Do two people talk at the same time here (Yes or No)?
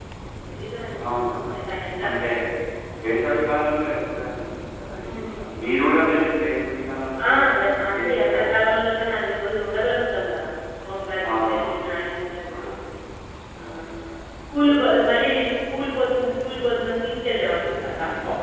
Yes